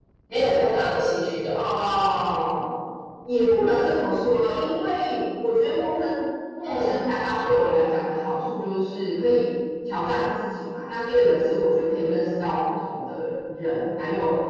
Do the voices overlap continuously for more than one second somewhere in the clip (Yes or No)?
No